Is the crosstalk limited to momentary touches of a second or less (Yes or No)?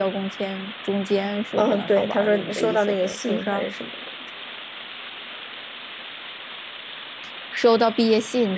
No